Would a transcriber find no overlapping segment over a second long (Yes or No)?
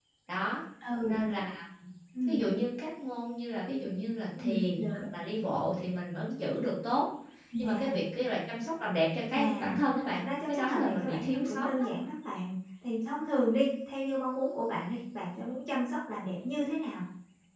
No